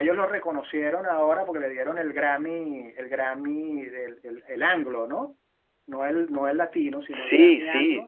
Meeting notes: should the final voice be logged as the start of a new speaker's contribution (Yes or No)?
Yes